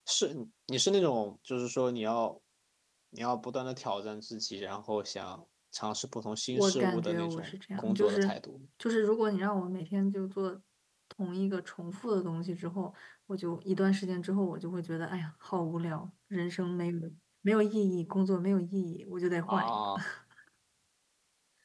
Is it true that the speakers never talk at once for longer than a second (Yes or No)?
No